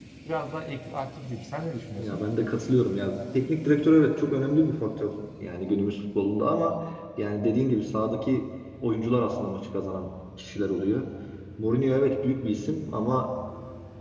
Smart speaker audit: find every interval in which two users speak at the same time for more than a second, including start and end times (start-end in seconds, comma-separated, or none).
none